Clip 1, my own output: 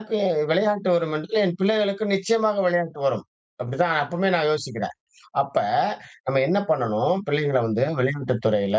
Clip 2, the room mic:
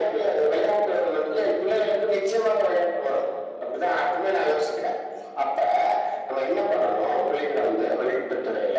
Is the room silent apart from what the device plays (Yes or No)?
Yes